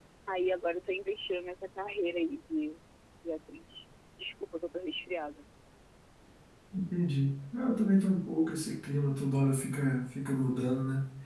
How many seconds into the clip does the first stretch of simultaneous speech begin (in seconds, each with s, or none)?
none